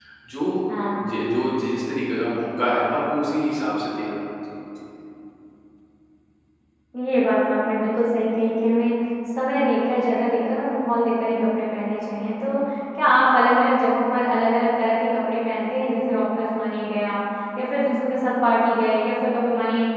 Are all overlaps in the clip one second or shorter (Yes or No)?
Yes